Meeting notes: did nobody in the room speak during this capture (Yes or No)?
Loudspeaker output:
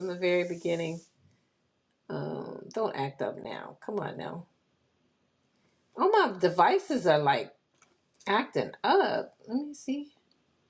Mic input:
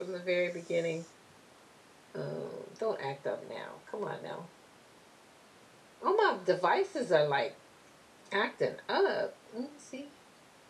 Yes